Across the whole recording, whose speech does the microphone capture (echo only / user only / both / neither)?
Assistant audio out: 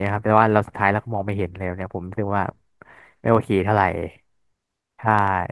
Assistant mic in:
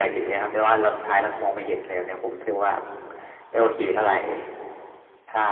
echo only